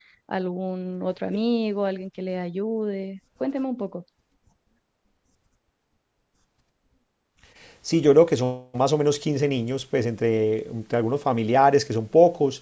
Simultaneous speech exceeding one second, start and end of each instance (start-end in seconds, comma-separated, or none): none